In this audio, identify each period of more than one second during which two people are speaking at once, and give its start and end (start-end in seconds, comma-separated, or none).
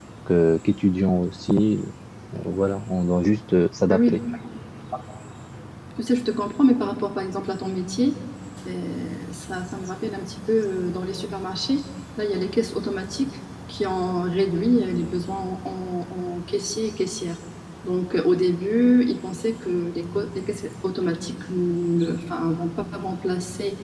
none